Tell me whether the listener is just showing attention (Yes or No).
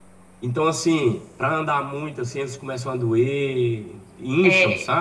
No